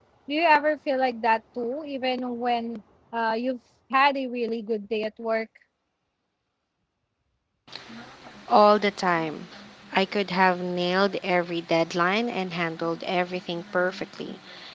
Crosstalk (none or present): none